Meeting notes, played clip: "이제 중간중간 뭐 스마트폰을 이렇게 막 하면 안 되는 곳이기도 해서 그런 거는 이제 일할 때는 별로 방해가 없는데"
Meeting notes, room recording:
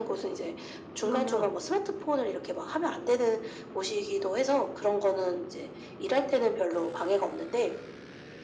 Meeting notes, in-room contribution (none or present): present